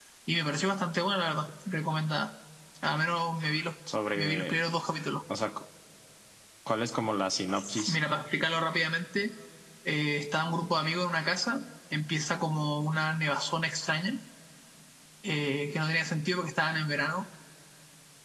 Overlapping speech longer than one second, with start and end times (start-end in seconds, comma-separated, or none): none